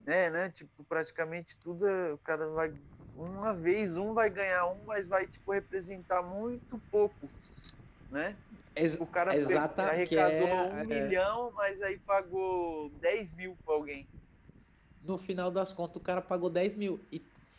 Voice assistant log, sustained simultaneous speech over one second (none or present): present